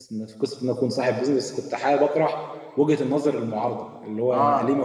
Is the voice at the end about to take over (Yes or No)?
No